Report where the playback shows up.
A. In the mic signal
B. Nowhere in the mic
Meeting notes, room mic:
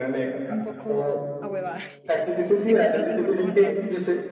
A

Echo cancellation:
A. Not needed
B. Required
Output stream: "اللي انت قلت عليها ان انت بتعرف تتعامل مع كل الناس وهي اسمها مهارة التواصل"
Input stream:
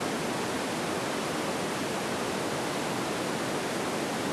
A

